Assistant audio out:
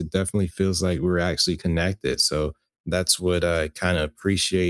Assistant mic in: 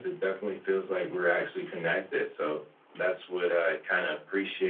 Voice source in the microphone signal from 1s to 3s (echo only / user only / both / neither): echo only